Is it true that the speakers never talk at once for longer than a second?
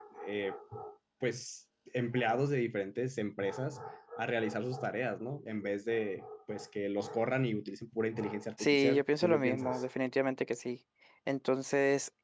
No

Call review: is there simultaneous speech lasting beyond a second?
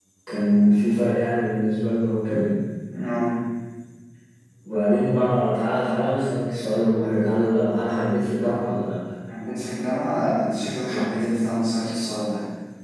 No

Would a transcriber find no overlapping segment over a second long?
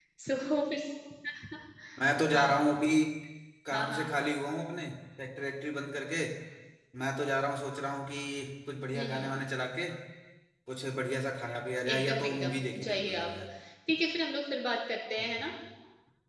No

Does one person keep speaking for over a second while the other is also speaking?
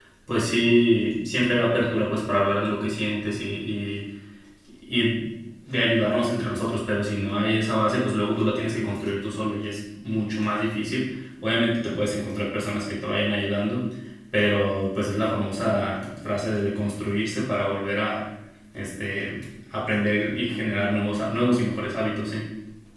No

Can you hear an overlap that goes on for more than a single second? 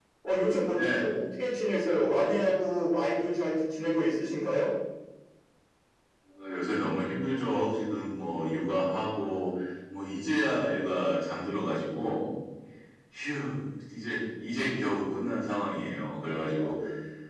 No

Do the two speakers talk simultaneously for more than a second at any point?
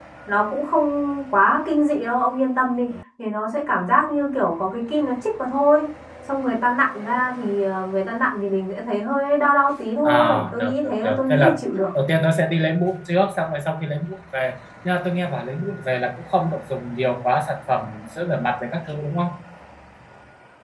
Yes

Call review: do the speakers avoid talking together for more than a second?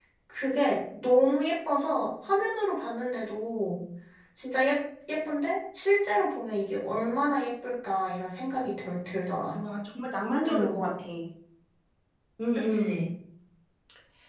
Yes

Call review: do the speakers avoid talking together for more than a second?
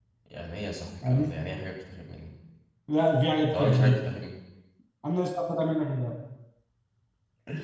Yes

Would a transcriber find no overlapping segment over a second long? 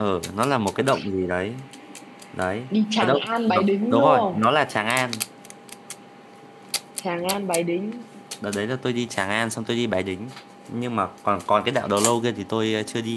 No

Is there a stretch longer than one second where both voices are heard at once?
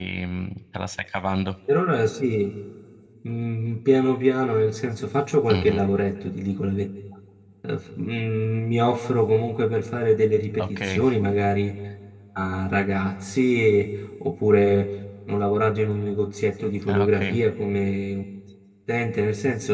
No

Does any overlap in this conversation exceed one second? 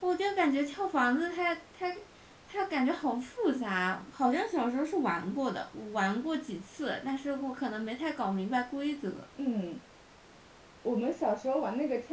No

